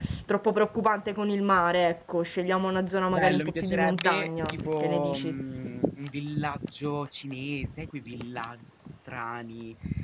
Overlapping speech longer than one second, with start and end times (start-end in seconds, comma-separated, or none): 3.1-5.3